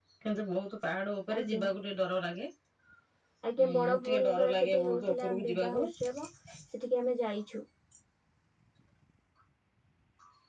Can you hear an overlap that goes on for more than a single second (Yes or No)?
Yes